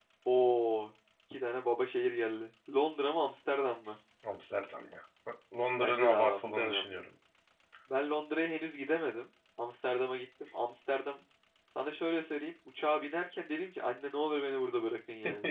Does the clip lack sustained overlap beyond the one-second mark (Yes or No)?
No